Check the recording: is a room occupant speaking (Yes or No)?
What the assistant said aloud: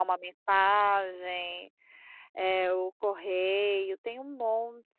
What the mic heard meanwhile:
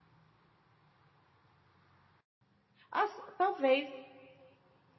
Yes